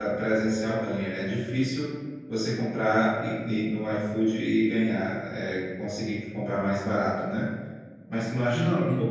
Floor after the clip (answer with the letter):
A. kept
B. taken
A